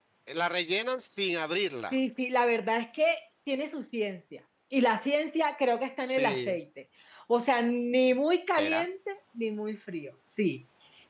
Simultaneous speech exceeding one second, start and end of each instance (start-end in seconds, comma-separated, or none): none